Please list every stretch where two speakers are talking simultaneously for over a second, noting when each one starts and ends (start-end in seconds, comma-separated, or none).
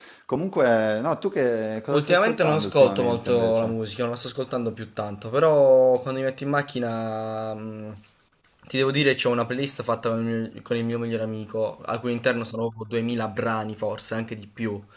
1.9-3.7